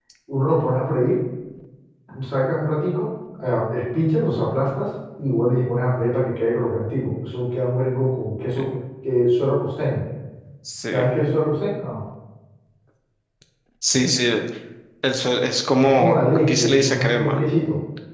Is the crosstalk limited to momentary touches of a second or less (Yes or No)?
No